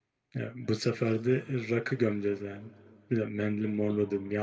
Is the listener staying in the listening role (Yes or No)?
Yes